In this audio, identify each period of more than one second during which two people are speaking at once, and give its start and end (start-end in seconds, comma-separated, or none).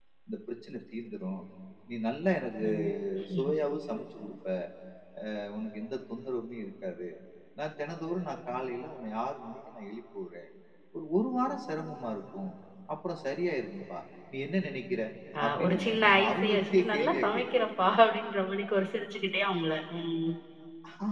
15.4-17.6